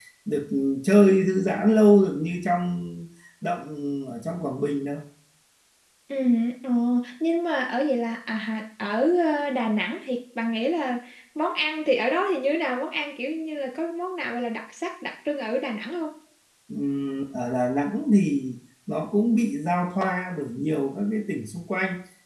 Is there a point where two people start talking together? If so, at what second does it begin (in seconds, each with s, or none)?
none